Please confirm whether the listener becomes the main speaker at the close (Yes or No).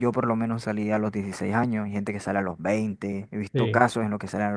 No